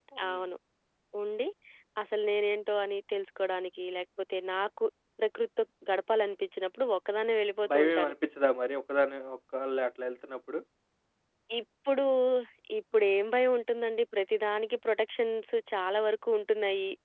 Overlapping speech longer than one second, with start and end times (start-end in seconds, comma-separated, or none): none